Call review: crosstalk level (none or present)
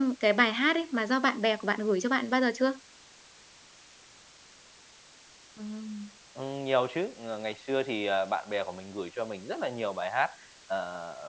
none